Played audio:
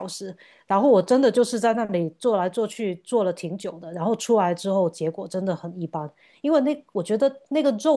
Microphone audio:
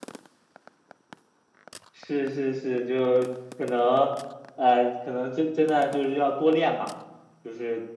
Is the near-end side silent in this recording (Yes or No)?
No